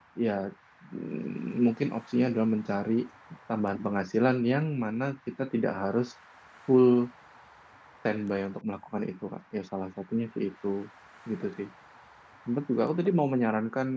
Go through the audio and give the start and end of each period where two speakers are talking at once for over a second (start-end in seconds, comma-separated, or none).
none